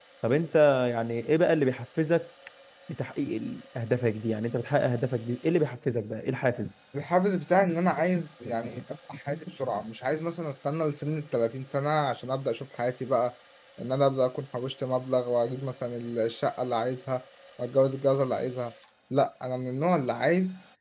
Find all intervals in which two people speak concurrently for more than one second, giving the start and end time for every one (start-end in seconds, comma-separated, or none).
none